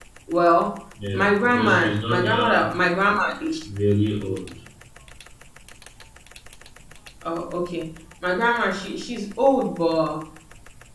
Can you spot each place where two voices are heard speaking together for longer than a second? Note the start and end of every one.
1.1-2.6

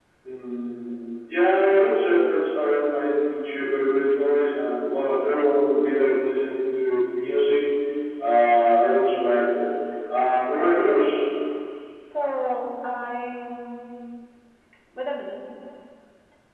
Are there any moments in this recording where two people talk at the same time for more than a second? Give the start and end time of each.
none

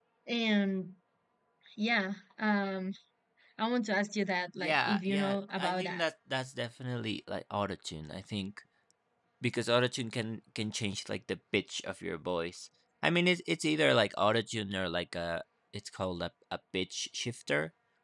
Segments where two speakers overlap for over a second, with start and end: 4.6-6.0

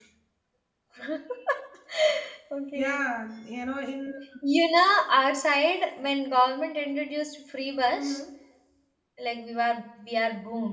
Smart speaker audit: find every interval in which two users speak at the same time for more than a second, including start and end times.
none

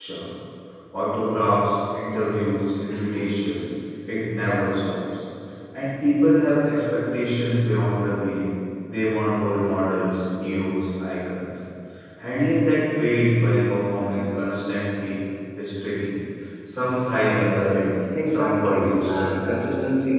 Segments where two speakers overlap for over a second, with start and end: 18.2-19.5

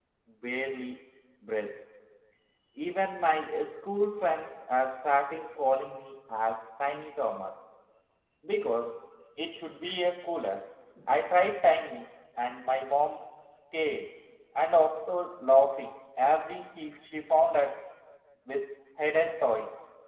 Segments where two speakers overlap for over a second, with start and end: none

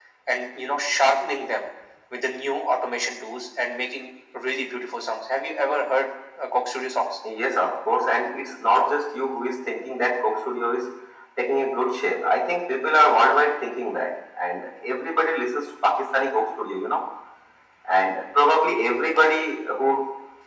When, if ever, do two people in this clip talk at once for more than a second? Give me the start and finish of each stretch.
none

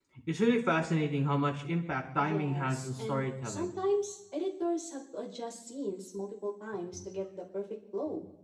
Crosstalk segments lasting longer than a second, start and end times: 2.2-3.7

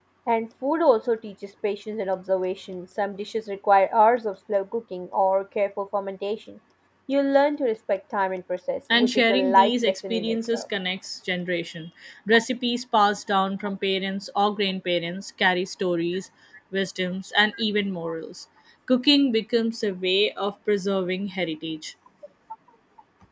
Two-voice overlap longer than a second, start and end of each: 8.9-10.6

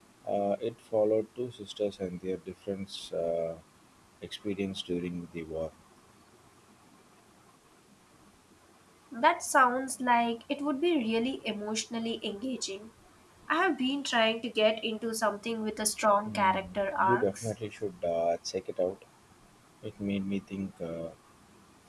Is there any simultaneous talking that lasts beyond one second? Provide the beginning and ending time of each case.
16.3-17.5

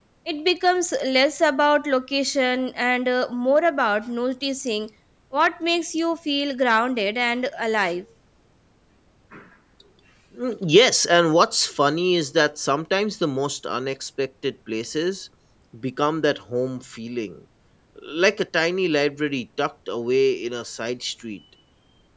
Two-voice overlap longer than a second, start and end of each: none

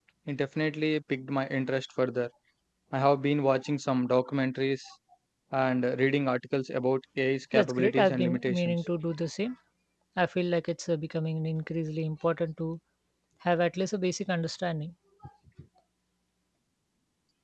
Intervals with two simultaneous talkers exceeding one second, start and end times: 7.5-8.8

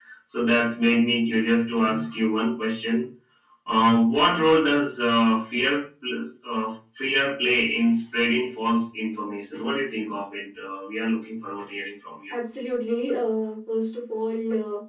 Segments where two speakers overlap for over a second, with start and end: none

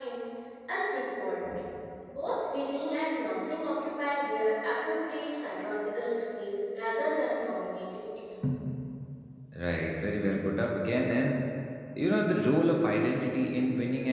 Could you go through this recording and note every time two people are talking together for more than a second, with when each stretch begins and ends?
none

